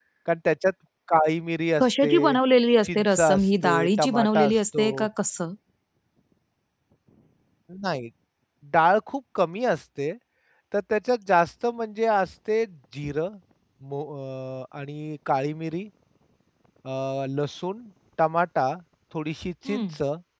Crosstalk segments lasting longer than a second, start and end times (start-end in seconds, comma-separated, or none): 2.8-5.1